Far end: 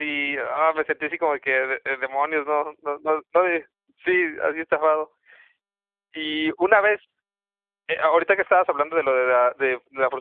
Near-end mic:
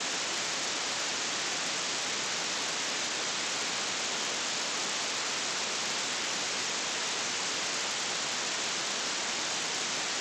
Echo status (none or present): none